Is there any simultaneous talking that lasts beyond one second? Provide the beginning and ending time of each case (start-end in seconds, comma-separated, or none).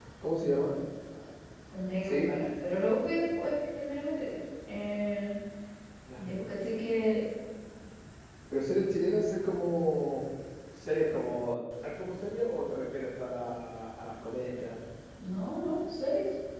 none